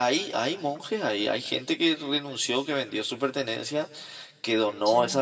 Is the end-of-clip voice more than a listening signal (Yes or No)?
No